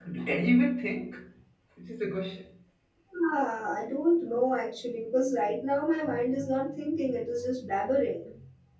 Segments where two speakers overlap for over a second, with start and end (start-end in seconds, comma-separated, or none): none